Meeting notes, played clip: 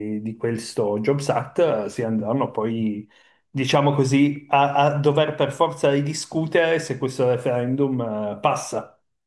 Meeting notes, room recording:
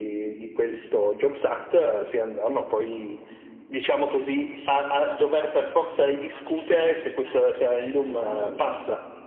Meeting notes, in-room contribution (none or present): present